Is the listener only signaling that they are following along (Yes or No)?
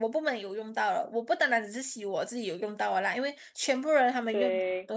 Yes